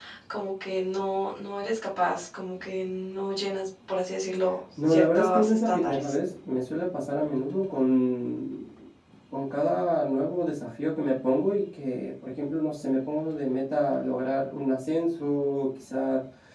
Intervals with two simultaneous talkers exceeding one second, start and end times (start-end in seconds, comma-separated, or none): 4.9-6.1